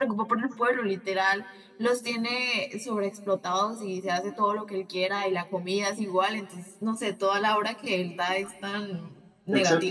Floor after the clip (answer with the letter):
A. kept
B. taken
B